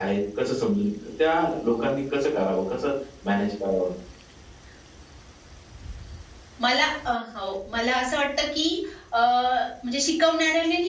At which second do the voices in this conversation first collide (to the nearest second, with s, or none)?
none